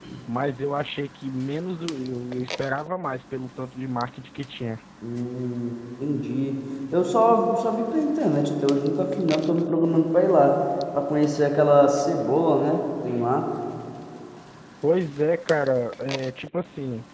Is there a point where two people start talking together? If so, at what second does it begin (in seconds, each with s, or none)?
none